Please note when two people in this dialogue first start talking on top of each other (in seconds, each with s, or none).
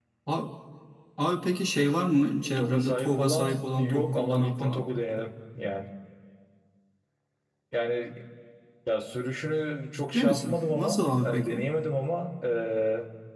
2.6 s